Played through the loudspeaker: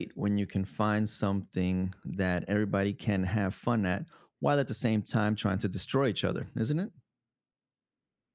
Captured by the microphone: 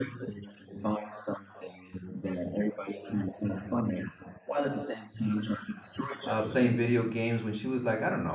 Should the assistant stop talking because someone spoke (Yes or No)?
Yes